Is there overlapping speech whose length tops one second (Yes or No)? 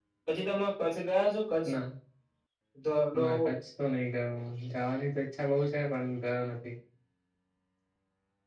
No